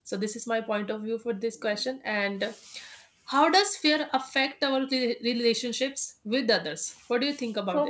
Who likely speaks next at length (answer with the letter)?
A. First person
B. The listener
B